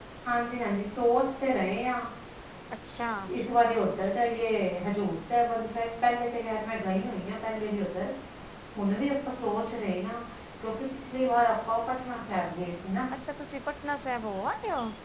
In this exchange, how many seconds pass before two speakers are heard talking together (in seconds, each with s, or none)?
none